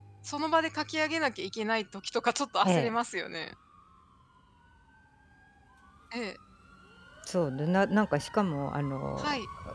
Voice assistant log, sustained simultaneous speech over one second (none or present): none